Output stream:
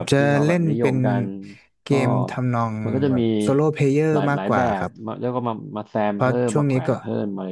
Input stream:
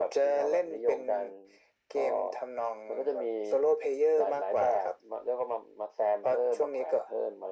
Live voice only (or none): none